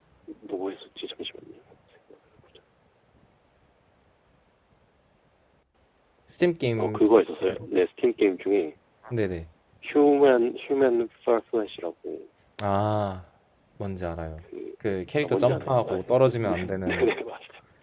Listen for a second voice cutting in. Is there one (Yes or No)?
Yes